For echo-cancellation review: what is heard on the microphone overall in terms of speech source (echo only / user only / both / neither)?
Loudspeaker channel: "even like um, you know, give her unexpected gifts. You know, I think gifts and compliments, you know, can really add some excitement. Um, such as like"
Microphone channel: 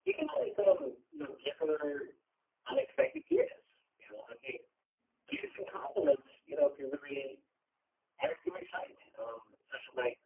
echo only